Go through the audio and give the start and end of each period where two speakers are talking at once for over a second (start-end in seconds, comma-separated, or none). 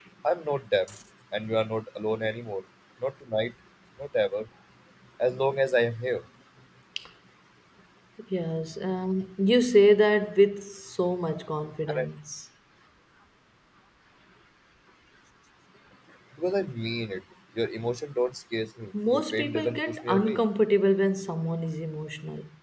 19.1-20.4